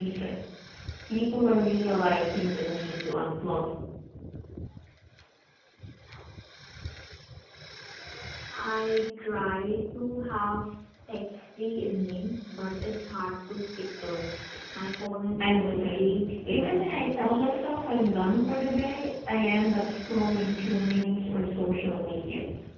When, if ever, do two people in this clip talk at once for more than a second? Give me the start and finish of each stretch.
15.4-17.5

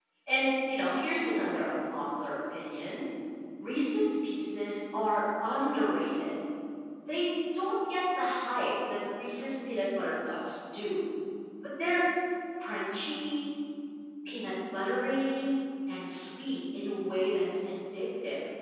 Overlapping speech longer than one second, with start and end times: none

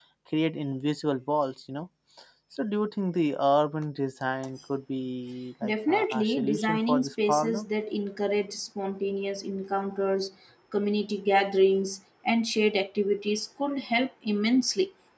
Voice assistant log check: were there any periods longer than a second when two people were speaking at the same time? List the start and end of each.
5.6-7.7

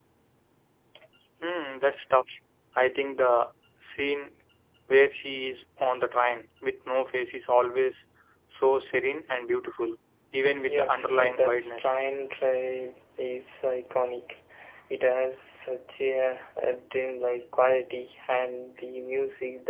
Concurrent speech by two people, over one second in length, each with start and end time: 10.6-11.9

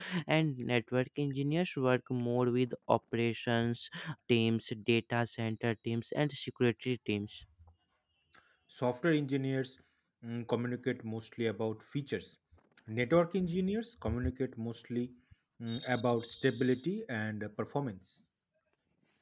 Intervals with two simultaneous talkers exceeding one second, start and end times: none

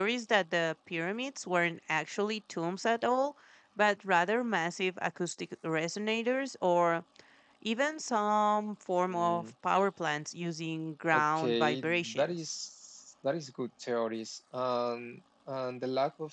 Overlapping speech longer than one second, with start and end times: 11.1-12.3

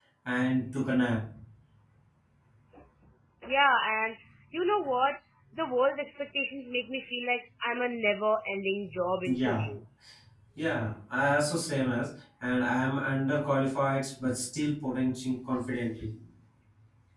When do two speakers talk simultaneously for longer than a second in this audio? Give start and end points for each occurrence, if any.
none

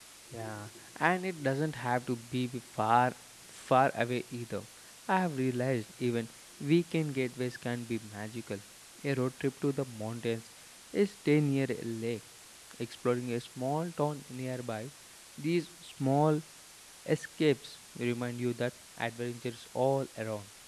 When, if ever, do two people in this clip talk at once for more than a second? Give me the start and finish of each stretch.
none

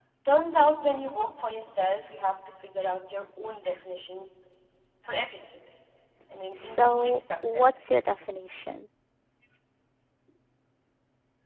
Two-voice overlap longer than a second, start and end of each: 6.6-7.9

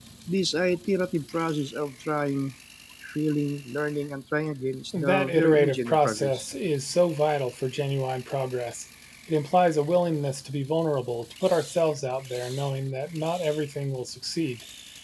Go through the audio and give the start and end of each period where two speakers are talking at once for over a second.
5.0-6.5

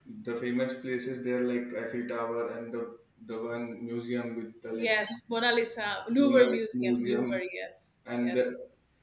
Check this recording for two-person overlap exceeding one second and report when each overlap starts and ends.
6.2-7.4

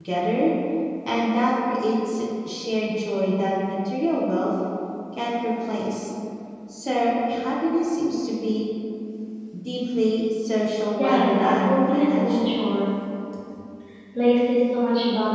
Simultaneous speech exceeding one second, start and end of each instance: 11.0-12.6

